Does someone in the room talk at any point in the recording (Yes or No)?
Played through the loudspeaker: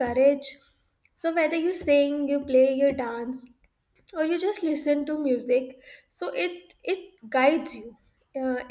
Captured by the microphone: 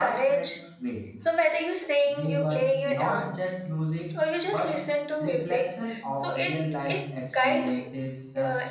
Yes